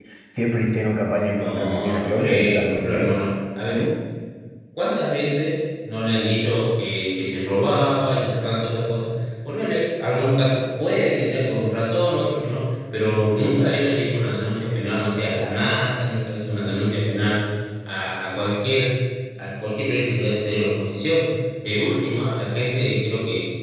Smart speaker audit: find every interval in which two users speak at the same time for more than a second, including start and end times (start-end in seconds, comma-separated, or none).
1.2-3.2